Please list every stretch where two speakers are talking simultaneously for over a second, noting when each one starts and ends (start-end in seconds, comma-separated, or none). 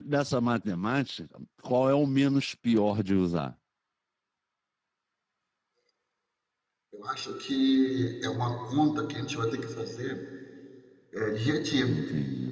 none